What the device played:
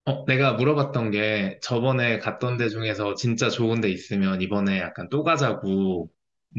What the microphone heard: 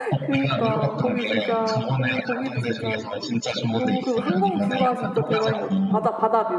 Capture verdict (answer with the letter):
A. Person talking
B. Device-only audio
A